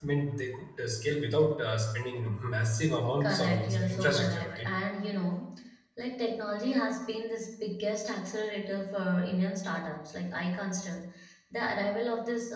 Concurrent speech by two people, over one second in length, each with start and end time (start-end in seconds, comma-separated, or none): 3.2-4.7